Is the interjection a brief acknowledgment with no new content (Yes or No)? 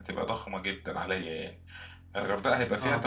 Yes